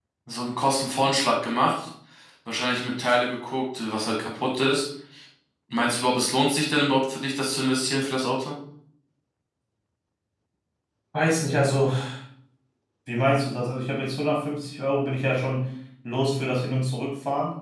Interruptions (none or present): none